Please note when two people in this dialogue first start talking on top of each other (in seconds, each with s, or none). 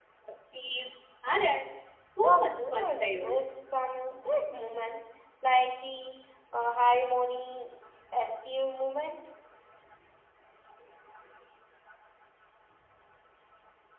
2.2 s